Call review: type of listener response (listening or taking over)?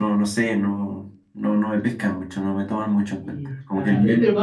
taking over